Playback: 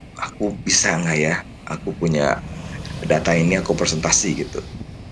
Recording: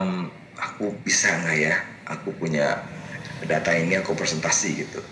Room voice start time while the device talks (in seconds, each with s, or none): none